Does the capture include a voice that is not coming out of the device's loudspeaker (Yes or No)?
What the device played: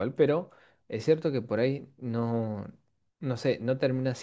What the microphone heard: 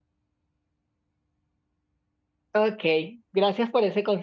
Yes